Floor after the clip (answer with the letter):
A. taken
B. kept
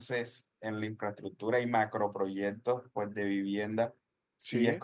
B